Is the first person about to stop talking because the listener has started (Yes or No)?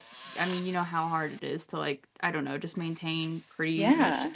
No